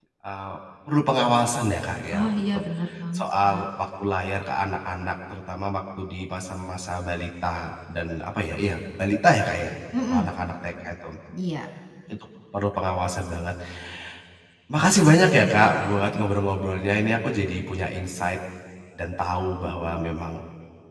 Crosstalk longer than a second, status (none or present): none